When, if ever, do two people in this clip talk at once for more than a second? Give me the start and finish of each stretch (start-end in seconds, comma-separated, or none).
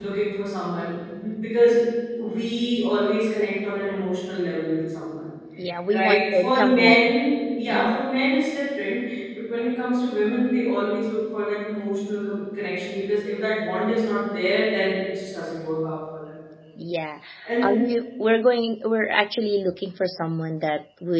5.9-7.2